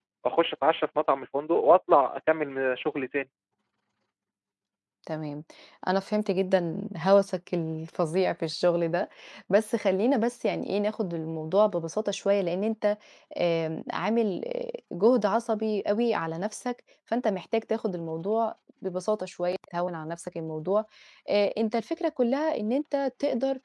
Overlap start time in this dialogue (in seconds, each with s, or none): none